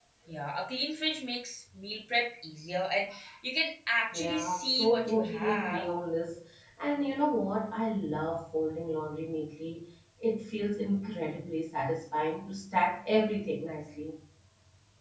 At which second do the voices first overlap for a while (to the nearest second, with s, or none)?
4 s